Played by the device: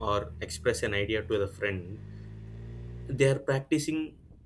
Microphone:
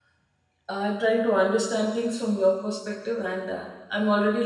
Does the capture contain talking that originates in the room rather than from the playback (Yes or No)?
Yes